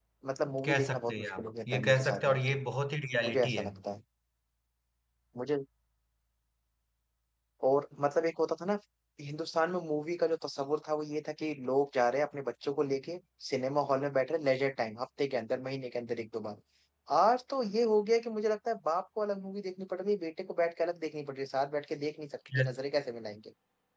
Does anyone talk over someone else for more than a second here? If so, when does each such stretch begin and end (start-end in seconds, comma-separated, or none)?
0.6-2.6